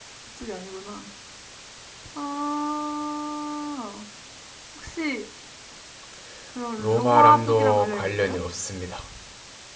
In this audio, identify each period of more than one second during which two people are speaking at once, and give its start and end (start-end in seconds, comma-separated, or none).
6.8-8.4